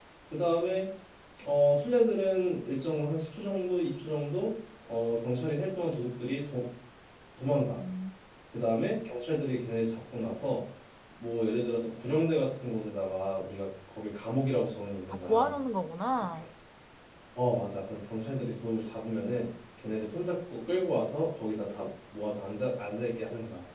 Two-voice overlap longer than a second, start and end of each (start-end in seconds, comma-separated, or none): none